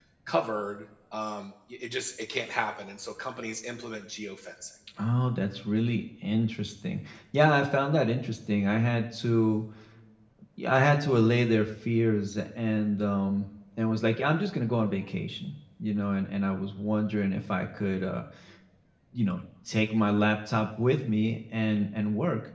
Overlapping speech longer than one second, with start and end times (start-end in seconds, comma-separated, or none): none